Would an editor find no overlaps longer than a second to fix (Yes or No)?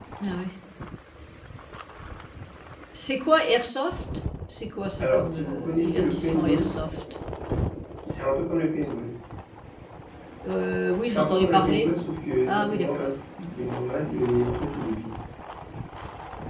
No